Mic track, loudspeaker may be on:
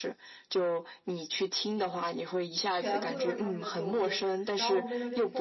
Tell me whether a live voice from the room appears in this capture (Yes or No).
Yes